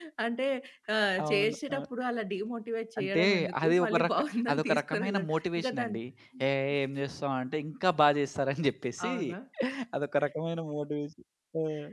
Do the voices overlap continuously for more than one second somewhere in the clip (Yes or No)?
Yes